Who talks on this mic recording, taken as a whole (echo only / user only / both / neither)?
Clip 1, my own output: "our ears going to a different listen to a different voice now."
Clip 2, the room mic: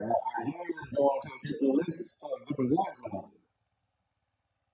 echo only